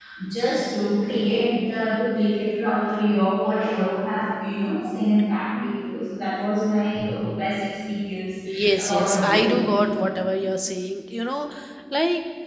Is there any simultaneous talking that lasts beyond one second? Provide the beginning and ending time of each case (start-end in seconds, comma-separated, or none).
8.8-10.0